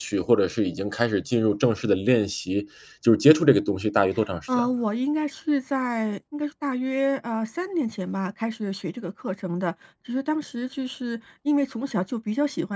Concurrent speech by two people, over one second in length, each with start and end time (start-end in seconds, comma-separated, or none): none